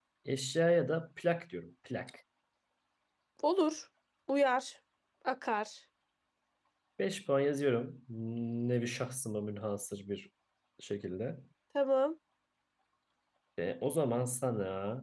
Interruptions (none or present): none